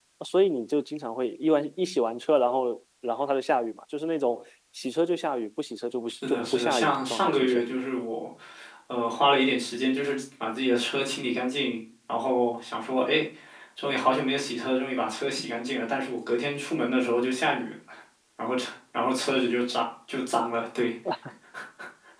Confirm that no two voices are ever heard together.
No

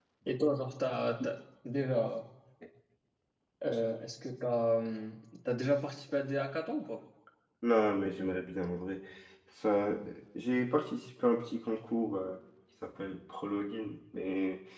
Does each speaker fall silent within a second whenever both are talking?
Yes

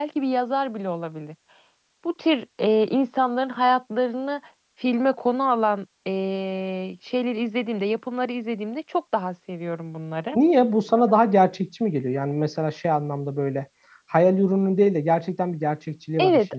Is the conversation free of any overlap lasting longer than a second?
Yes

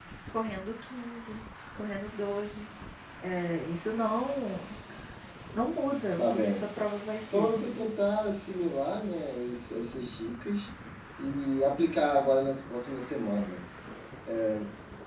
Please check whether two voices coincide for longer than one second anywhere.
No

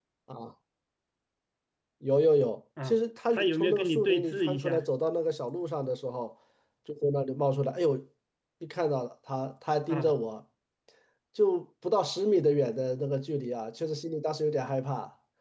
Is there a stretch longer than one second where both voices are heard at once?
Yes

